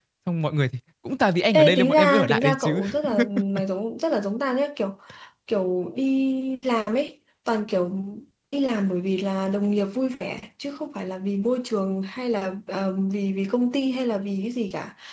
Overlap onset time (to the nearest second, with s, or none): 2 s